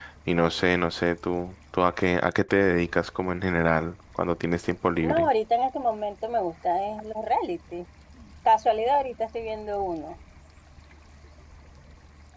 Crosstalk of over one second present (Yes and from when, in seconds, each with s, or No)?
No